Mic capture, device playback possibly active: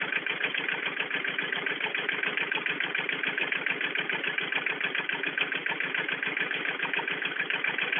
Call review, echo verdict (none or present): none